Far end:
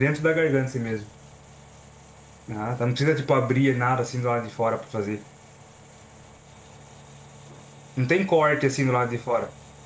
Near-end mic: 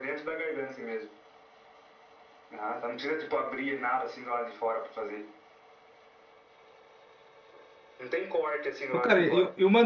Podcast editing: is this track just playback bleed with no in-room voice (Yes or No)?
No